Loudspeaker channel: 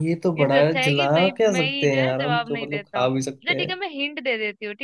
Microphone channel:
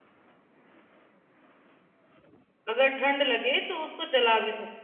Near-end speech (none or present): present